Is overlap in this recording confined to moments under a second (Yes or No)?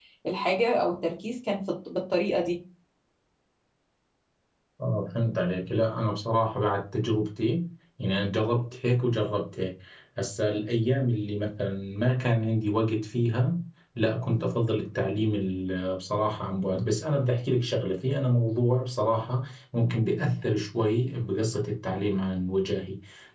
Yes